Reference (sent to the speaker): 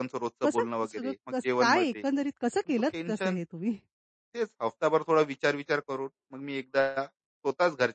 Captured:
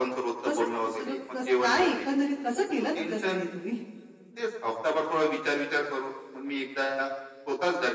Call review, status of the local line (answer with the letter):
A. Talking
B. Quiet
B